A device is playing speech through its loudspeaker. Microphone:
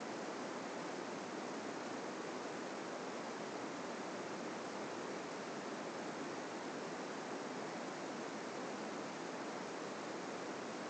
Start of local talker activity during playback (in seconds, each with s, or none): none